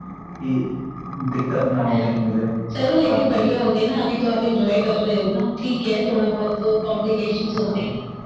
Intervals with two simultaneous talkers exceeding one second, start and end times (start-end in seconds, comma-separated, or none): none